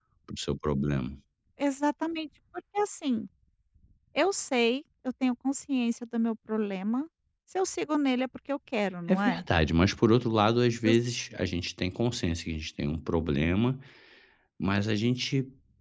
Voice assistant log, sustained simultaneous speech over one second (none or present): none